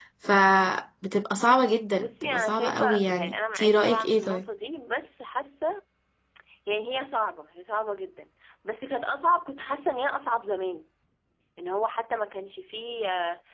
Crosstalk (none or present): present